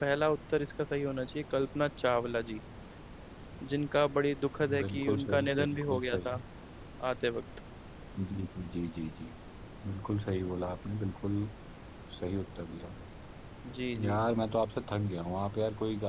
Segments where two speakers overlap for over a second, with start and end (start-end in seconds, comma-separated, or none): 4.8-6.3